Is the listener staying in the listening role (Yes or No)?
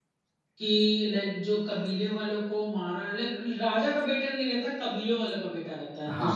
No